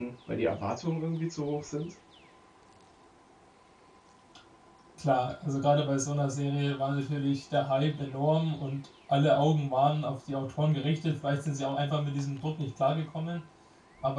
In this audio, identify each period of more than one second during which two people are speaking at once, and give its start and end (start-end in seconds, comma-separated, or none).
none